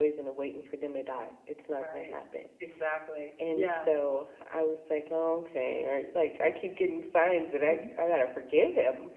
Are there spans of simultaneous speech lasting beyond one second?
No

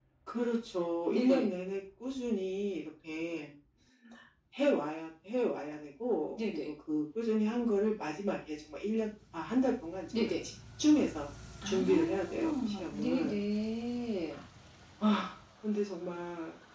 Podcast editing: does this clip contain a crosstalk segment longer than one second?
Yes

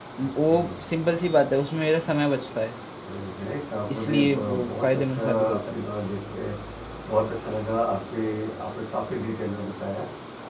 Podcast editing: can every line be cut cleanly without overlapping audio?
No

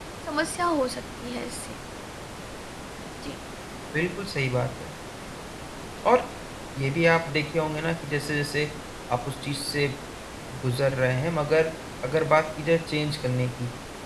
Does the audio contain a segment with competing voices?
No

